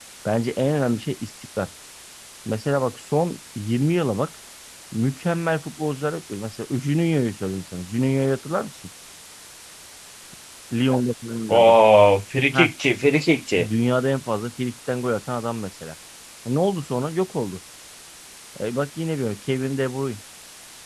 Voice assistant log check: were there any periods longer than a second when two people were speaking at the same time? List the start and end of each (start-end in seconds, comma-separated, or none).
none